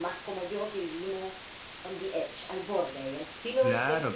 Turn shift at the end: Yes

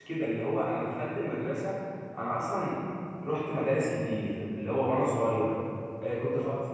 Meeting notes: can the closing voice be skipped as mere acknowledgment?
Yes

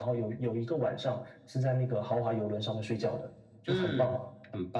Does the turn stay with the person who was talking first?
No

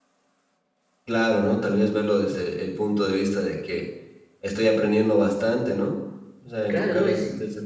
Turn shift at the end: Yes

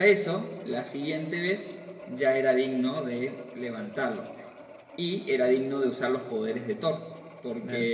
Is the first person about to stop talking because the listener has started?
No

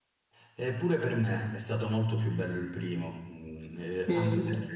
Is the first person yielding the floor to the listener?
No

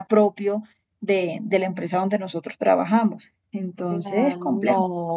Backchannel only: No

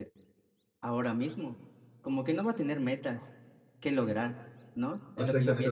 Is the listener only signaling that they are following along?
No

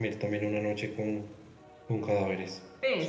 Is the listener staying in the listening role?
No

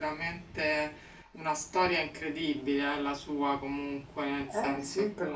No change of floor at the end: No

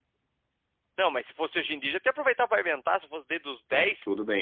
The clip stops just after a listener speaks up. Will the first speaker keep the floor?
No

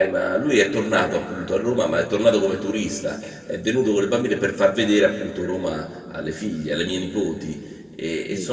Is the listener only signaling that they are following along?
Yes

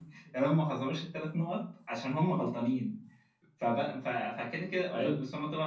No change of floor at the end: Yes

